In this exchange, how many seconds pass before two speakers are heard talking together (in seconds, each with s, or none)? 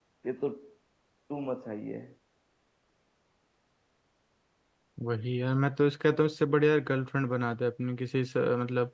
none